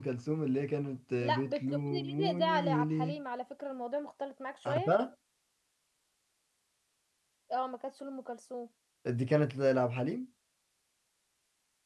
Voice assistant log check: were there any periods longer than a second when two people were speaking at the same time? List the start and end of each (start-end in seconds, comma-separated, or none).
1.2-3.2